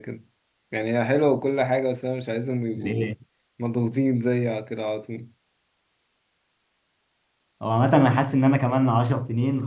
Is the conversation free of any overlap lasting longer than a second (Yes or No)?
Yes